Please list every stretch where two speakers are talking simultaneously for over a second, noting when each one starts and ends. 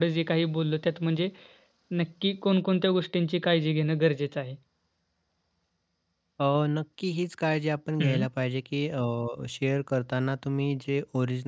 none

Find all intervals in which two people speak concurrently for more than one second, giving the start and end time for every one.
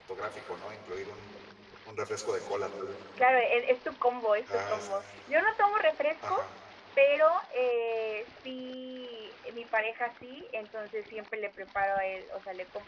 none

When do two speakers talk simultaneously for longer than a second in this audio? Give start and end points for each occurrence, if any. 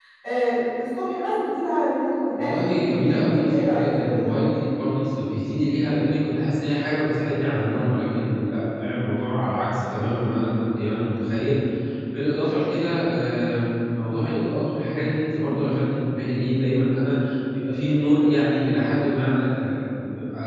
2.4-4.3

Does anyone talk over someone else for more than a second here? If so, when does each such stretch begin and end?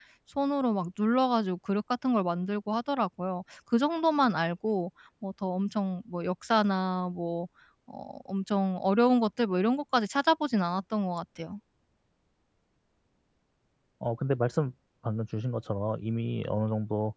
none

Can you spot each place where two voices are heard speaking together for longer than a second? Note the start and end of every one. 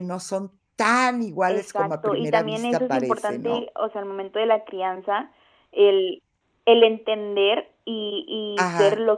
1.5-3.6

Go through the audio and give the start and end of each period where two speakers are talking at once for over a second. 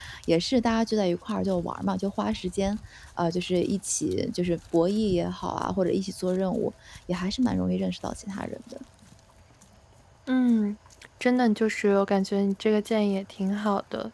none

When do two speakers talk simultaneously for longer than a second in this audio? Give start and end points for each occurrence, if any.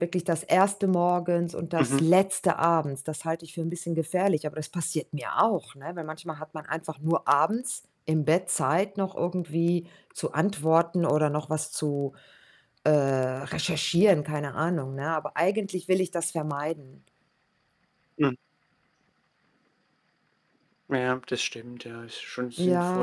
none

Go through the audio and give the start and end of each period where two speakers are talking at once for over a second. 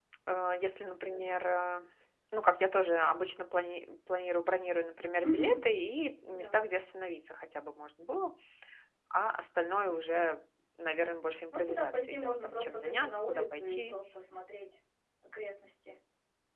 11.7-13.9

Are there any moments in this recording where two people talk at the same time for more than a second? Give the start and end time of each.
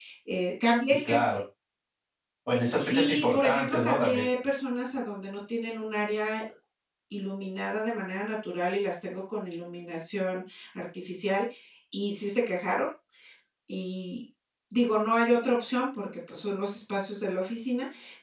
2.8-4.2

